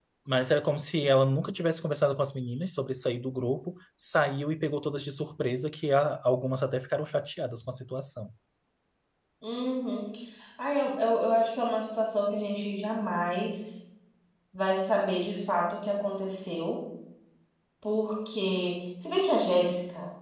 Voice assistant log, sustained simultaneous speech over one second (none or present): none